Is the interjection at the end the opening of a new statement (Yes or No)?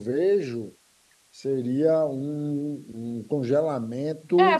Yes